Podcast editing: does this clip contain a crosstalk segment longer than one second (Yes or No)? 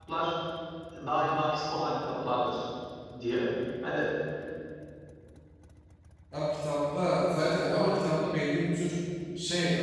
No